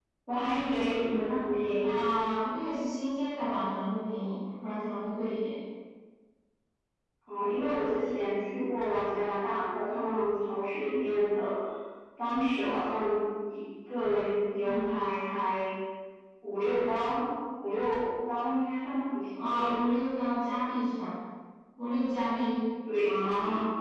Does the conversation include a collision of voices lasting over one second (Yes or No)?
No